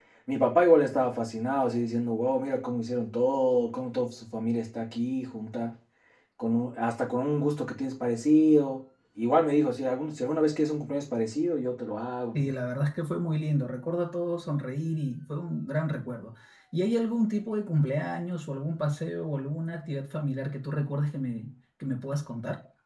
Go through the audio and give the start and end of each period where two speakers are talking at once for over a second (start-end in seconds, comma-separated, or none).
none